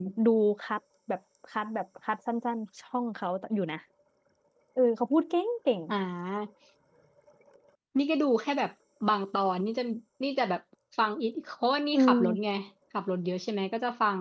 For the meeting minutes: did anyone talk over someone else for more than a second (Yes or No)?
No